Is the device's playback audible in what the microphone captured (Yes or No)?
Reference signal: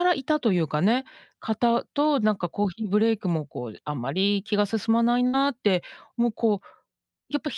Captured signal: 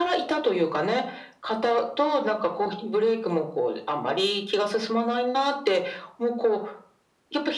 Yes